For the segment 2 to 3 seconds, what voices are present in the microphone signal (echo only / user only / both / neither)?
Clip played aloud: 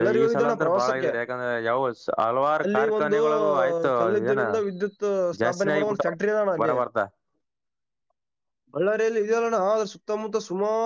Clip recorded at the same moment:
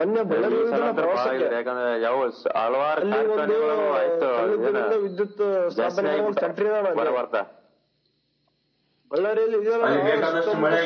echo only